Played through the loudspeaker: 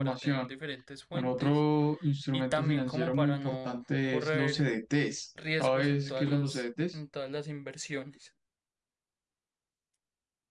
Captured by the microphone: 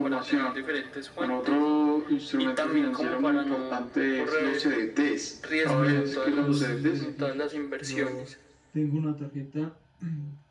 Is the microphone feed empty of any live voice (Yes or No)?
No